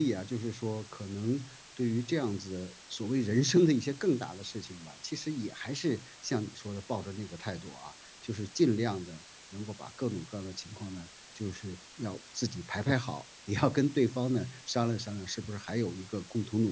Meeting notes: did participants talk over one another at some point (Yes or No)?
No